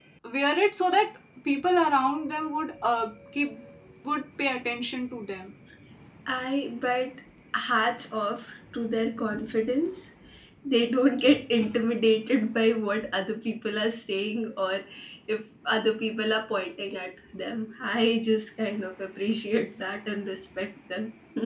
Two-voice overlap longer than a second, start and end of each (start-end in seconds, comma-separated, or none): none